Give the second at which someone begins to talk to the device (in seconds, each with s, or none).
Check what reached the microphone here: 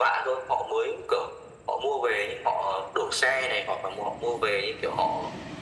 none